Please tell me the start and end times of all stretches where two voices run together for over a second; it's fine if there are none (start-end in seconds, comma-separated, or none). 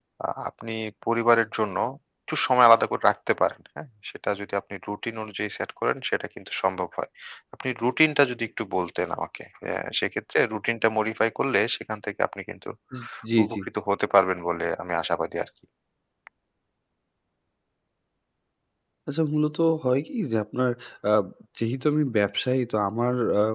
none